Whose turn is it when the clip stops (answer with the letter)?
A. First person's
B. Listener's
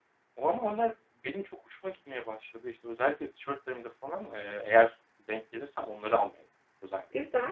B